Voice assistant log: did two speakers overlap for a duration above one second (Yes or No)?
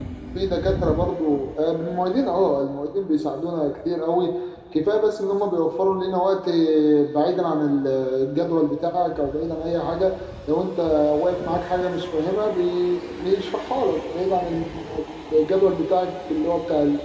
No